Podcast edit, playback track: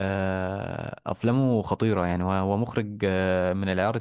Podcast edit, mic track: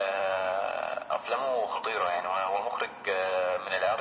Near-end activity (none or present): none